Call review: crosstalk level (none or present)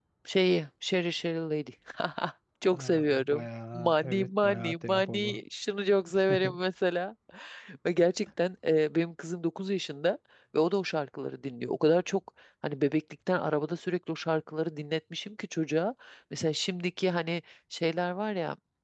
present